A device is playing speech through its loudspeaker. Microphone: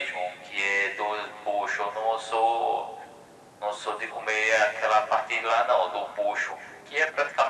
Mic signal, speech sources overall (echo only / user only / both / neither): echo only